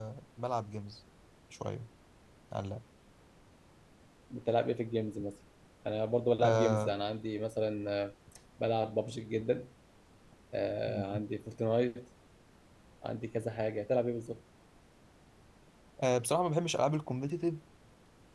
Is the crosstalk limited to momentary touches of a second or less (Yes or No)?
Yes